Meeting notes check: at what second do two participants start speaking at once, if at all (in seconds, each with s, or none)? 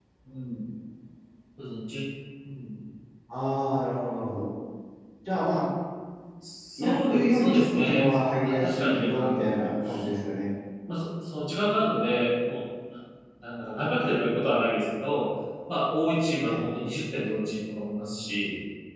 6.8 s